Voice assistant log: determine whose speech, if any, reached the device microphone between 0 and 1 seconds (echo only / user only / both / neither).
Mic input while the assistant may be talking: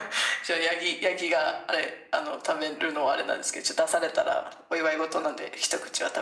echo only